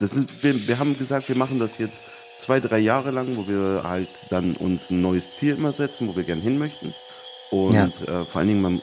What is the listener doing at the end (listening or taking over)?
listening